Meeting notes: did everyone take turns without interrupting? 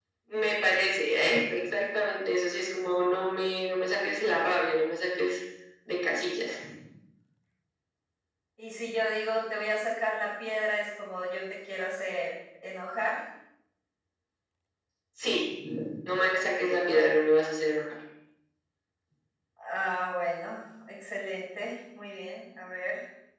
Yes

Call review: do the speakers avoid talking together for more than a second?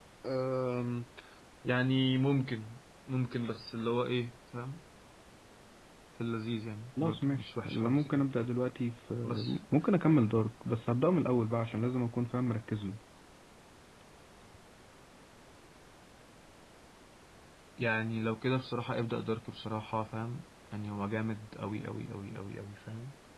No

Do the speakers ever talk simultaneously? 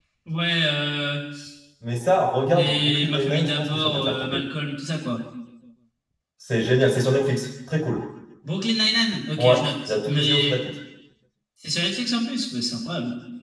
Yes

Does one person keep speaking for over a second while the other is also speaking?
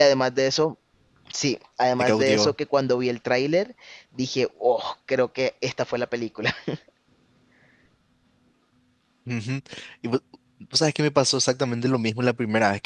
No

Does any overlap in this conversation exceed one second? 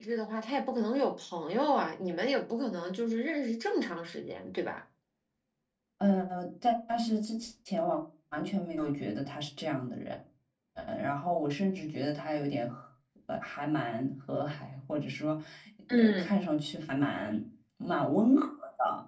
No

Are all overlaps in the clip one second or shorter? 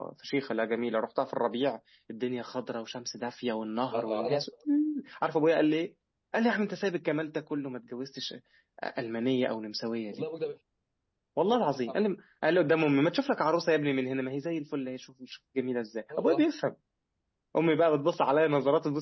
Yes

